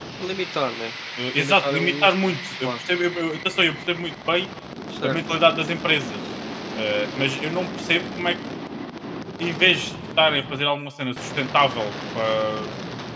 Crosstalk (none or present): present